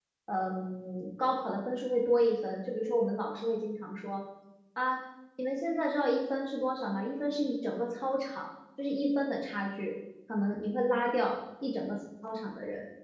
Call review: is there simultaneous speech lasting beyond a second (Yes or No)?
No